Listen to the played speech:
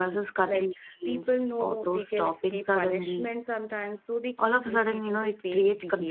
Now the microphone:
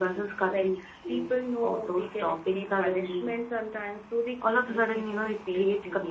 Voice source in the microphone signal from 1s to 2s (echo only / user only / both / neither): echo only